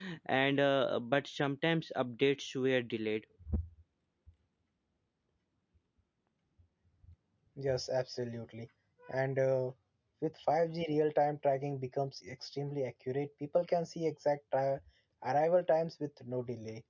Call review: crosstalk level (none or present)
none